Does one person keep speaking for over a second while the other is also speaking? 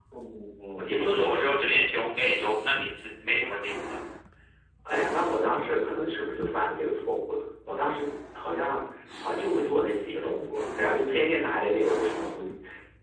No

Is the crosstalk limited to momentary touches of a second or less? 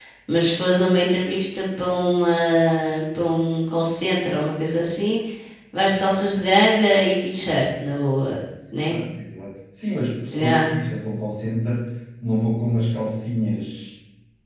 Yes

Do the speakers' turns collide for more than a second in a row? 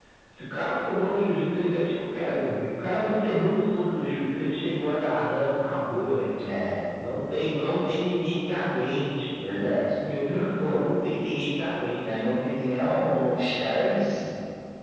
No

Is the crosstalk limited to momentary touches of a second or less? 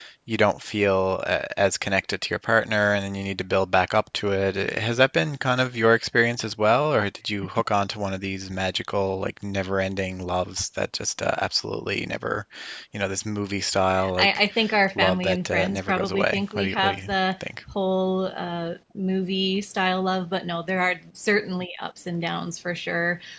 No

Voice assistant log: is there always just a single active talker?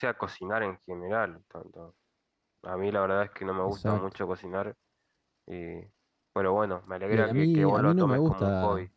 No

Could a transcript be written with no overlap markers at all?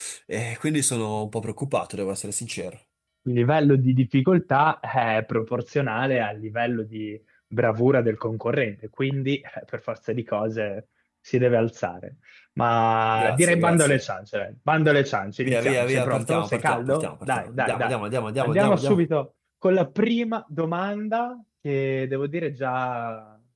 No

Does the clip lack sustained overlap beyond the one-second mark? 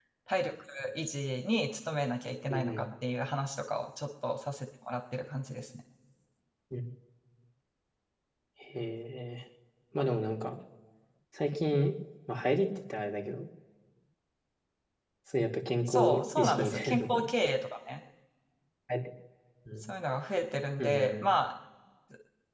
No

